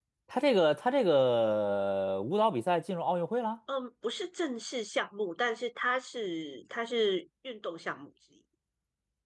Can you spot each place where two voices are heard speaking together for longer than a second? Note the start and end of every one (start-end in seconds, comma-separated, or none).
none